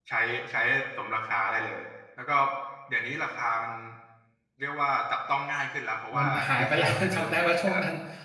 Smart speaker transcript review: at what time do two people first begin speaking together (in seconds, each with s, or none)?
6.1 s